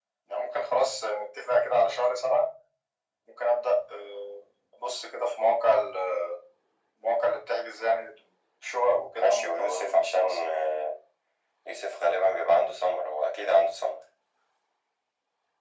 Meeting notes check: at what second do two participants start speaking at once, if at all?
9 s

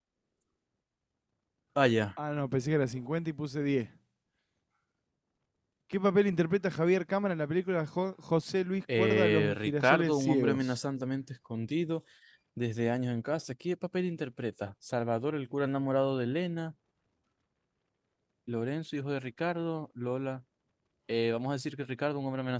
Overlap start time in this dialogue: 9 s

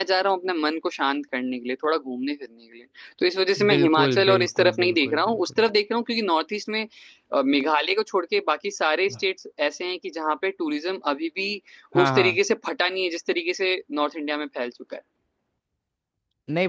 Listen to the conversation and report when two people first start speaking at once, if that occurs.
4 s

